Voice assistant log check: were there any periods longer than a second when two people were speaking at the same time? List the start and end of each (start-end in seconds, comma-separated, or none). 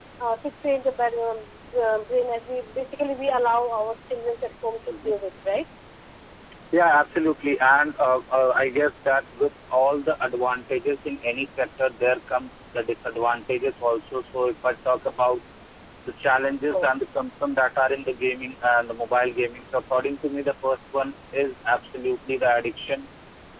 none